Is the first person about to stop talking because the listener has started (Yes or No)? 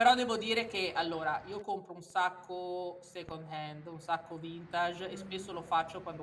No